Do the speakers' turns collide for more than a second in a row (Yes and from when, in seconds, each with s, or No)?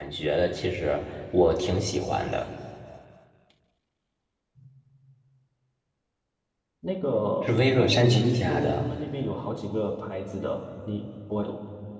Yes, from 7.4 s